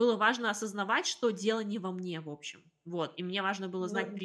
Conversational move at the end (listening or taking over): listening